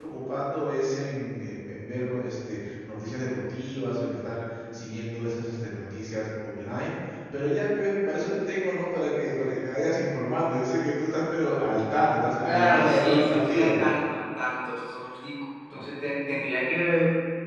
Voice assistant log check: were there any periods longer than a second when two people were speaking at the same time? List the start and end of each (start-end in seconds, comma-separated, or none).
12.4-13.8